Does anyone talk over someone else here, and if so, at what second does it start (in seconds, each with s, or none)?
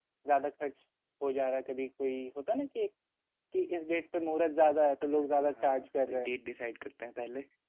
5.0 s